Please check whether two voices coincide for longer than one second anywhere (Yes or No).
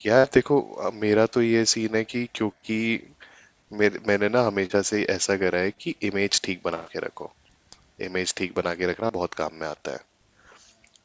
No